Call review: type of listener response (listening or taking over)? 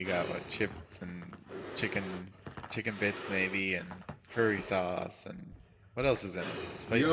taking over